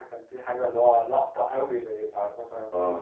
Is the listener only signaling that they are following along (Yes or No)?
No